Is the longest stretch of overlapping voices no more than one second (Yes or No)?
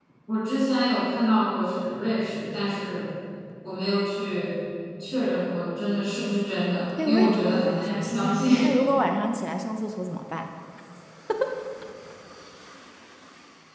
No